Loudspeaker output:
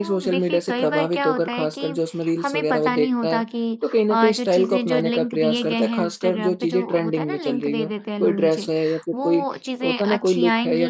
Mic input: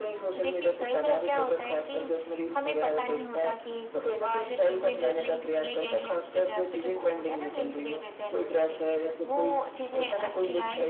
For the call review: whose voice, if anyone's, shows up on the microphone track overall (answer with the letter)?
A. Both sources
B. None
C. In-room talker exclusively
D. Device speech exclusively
D